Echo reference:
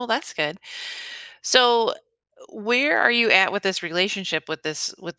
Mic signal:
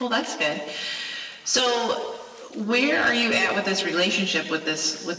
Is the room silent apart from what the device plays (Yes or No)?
Yes